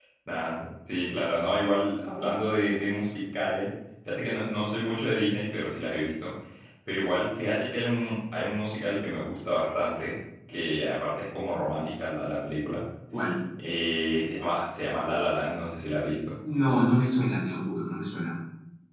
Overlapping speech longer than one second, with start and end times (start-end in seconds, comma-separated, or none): none